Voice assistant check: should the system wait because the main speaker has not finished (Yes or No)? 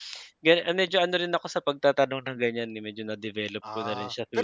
No